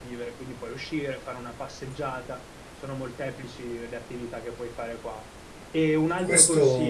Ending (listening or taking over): listening